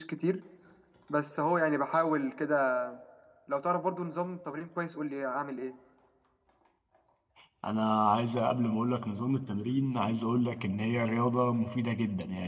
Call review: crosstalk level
none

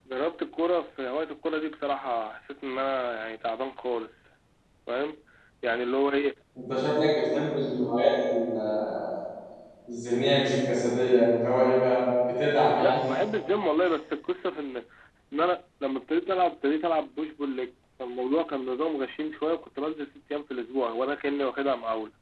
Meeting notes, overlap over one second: none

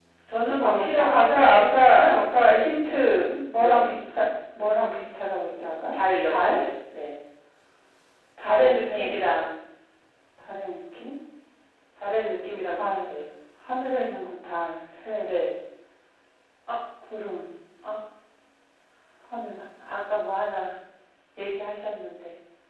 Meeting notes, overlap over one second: present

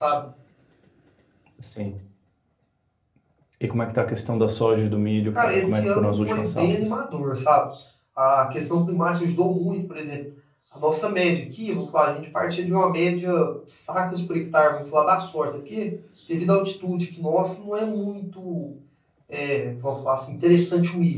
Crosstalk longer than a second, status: present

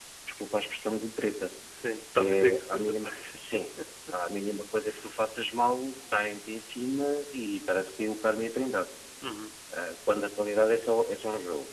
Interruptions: present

